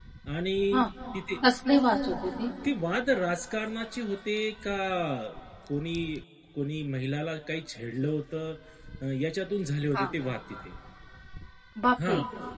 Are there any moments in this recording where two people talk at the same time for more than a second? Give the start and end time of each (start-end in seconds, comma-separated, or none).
none